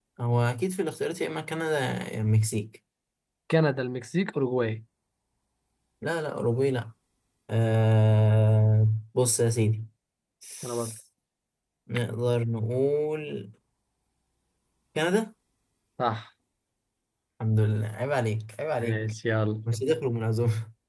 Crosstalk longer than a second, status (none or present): none